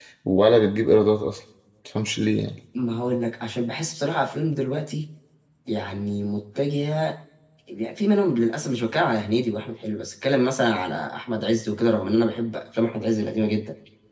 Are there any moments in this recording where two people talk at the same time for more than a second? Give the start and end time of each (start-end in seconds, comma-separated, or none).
none